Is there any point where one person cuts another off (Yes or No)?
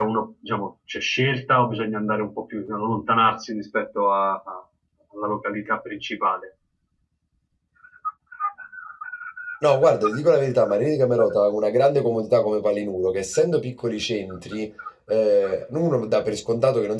No